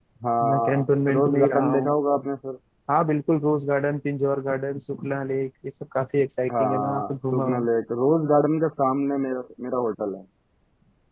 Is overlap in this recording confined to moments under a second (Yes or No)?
No